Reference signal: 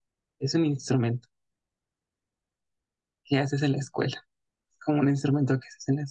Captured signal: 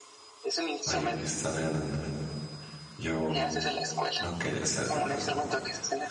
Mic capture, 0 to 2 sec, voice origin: both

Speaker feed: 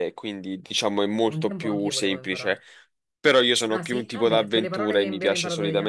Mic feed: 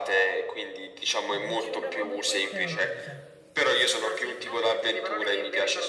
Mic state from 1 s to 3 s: both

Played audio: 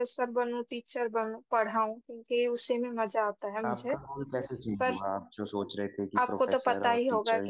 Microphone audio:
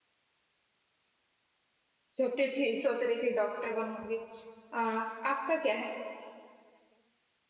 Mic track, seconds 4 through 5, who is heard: user only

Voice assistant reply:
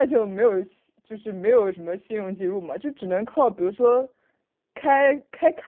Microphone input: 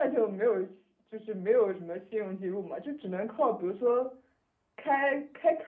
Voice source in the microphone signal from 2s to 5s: echo only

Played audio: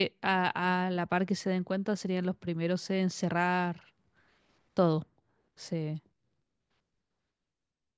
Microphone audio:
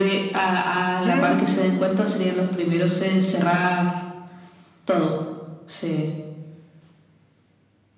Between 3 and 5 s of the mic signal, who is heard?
echo only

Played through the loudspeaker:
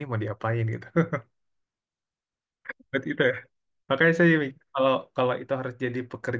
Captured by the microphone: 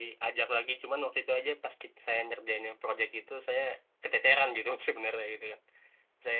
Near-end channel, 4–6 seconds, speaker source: user only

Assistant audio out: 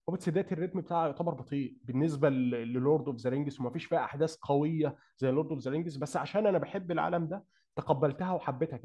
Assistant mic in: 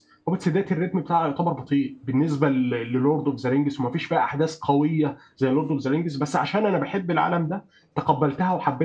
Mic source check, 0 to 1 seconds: echo only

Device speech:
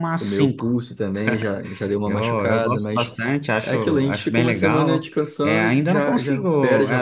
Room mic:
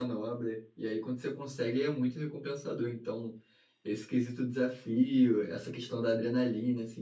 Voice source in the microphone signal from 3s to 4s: user only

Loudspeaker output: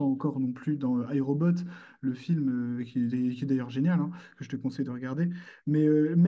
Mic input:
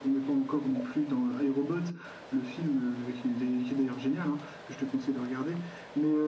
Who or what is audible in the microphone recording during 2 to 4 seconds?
echo only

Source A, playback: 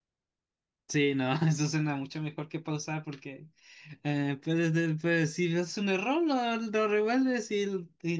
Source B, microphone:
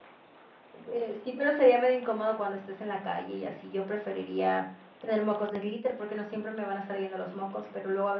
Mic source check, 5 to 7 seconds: user only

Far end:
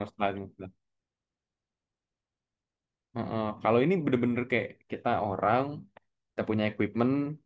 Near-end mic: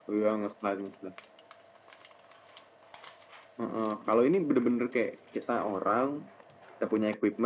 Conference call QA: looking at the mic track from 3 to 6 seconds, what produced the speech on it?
echo only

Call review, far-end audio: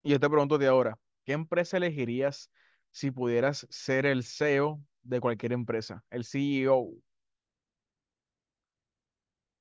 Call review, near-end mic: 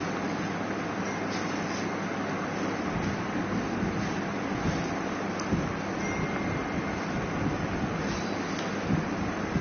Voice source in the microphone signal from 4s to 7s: neither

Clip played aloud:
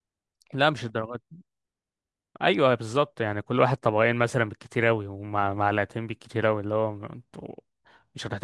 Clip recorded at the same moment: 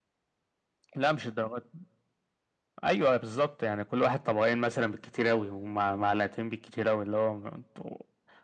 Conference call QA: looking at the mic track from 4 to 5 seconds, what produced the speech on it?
echo only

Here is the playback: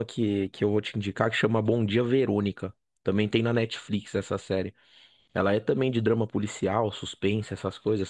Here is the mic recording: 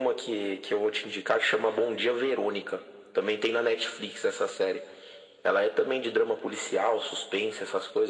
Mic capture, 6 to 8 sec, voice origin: echo only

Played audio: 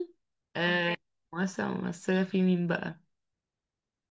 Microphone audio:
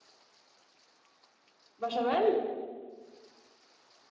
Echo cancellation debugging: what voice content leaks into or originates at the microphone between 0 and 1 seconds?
neither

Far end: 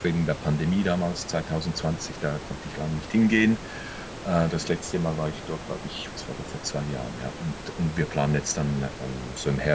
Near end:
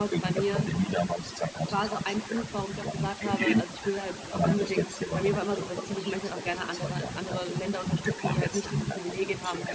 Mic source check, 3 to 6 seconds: both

